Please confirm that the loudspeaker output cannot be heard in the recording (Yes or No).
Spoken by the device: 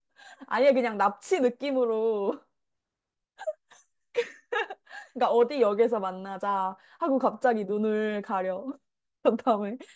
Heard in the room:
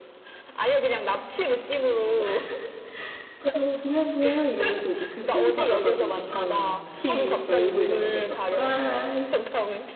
No